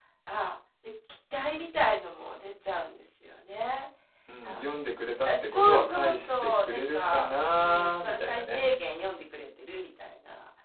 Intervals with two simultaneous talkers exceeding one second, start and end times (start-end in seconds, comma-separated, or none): 5.2-8.6